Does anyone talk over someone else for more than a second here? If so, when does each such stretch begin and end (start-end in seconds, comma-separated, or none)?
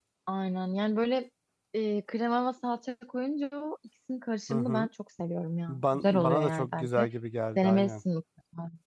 5.7-7.1